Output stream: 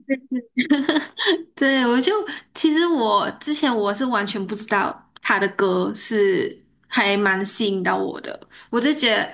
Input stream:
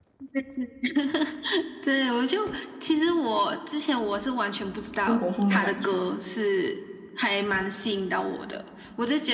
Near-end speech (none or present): present